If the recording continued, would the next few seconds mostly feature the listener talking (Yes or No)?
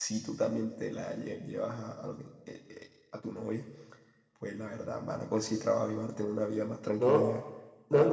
Yes